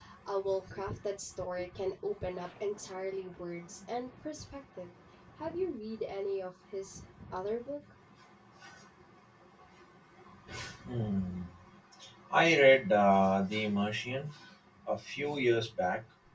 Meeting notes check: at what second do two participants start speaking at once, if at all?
none

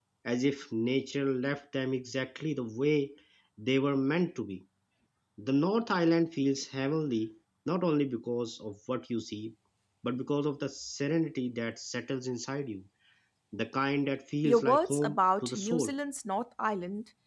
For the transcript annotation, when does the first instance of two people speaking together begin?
14.4 s

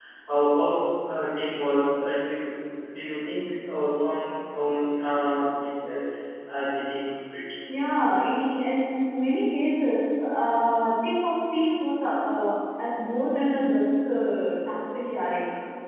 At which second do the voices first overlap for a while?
none

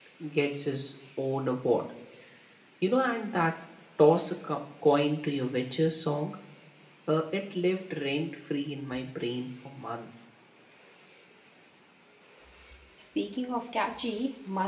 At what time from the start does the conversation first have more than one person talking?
none

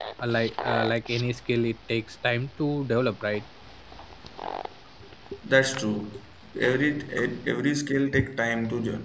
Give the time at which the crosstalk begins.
none

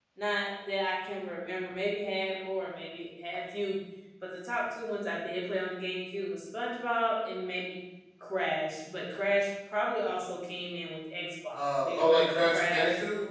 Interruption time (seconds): 11.5 s

